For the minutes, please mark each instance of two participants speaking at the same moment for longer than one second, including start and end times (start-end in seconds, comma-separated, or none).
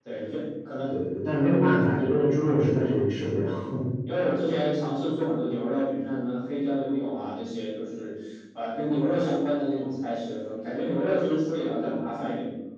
none